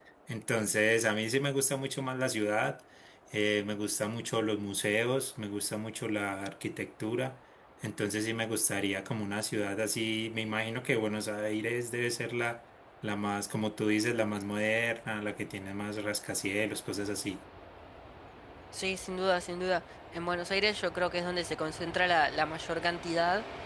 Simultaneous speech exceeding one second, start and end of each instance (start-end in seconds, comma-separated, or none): none